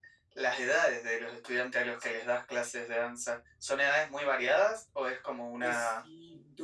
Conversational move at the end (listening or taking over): taking over